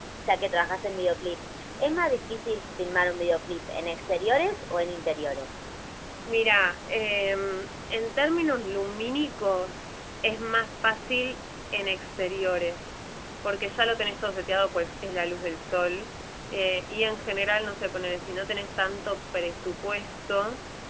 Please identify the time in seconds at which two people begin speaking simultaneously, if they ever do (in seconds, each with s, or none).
none